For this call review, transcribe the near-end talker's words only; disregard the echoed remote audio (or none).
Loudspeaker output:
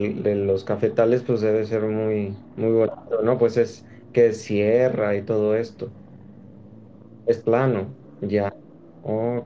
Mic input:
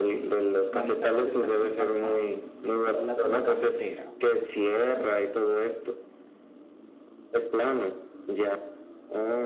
Manizales es cerquita acá. Esa es la zona cafetera.